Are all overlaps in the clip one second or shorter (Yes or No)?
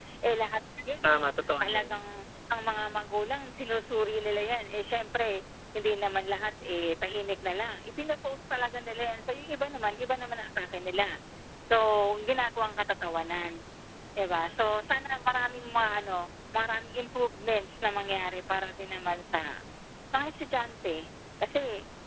Yes